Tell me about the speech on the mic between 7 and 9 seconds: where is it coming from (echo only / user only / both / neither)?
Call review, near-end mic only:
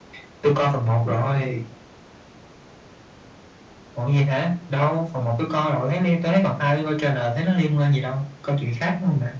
echo only